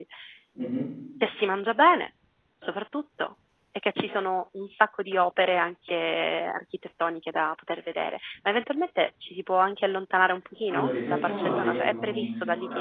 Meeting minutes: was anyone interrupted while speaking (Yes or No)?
Yes